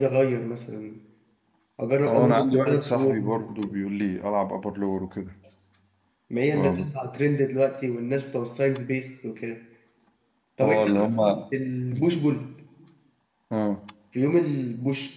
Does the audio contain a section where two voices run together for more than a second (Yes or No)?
Yes